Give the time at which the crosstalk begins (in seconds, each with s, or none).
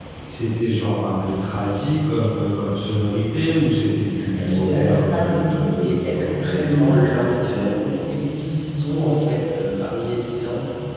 4.2 s